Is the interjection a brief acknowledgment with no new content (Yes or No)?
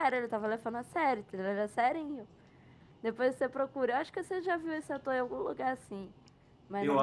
No